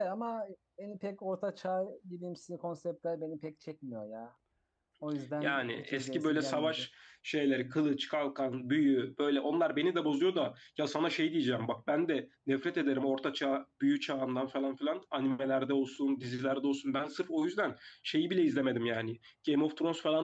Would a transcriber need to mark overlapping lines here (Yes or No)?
Yes